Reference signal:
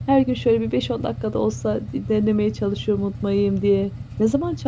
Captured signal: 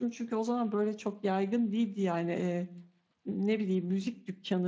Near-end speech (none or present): present